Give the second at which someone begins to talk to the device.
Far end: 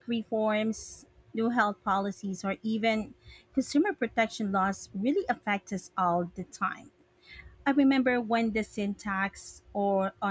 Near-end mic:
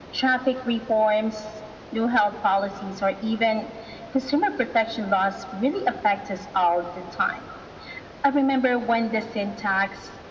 none

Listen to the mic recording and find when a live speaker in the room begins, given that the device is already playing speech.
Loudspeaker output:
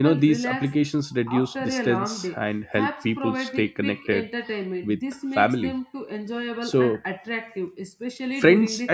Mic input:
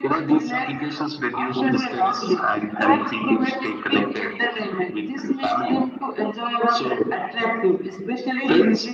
none

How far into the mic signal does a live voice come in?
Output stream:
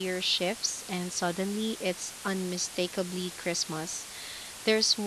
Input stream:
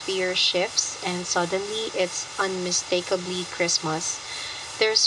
none

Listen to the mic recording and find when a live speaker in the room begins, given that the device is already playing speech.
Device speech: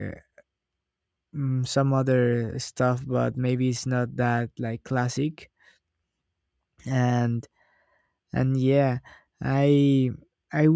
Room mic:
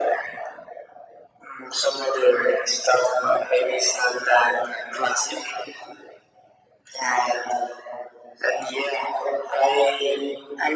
none

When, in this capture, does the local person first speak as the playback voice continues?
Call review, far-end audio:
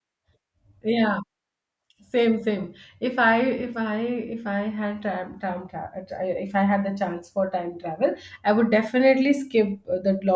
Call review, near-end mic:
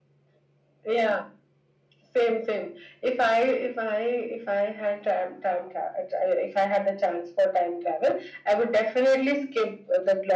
none

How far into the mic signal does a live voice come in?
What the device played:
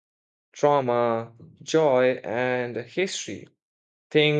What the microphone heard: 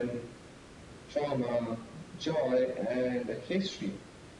none

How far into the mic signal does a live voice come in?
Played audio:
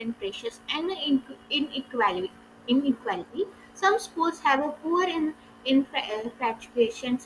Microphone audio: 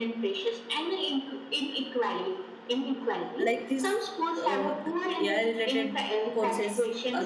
3.5 s

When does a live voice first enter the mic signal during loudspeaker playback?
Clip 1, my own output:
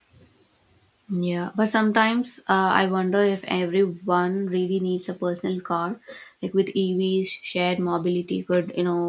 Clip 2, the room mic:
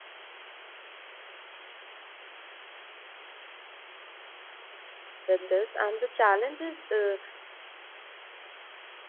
5.2 s

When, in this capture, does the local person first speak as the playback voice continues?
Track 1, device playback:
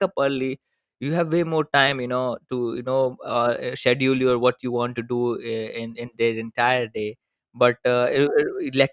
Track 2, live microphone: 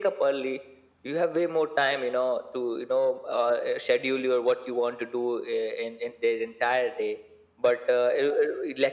none

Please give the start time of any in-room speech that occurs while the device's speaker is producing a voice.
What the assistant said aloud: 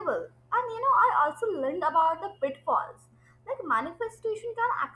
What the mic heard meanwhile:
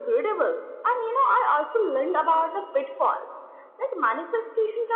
none

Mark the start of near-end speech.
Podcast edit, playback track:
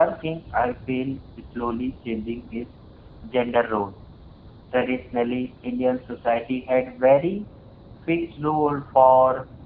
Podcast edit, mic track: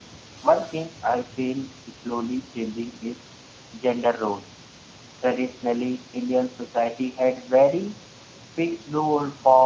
none

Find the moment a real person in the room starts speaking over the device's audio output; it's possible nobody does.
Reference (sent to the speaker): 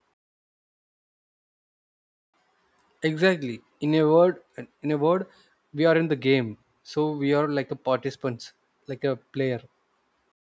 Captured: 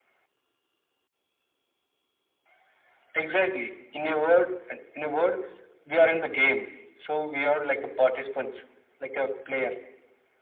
none

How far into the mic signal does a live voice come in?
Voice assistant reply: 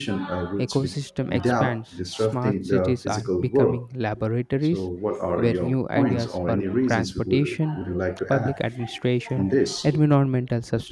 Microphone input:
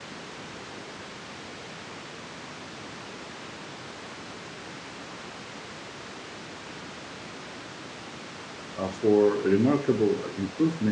8.8 s

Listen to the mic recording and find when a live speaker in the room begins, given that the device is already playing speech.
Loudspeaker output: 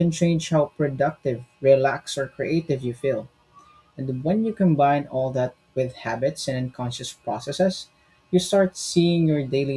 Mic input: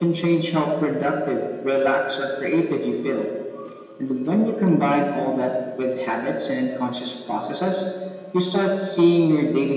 none

